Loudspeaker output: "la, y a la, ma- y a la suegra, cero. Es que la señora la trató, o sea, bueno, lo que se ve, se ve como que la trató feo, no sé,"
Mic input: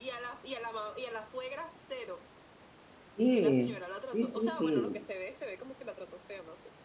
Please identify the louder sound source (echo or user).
user